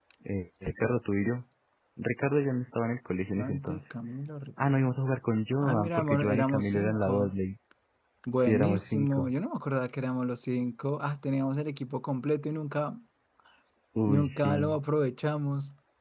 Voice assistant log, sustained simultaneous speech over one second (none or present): present